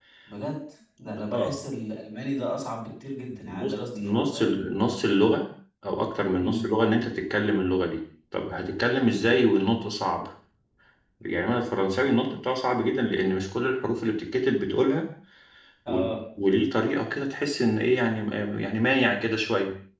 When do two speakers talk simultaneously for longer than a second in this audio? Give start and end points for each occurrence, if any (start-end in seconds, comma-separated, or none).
3.3-4.5